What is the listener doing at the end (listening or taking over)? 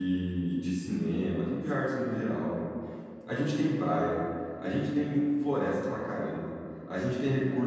listening